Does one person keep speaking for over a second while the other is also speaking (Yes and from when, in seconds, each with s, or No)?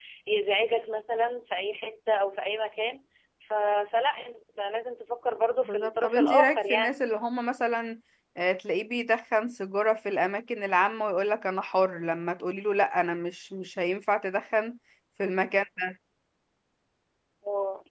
Yes, from 5.6 s